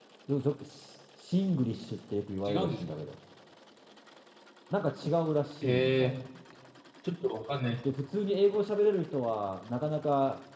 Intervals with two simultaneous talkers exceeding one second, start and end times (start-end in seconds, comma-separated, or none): none